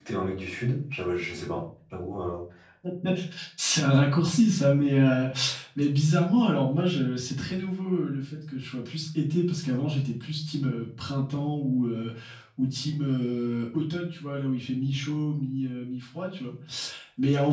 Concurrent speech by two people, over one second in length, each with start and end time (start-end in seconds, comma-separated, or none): none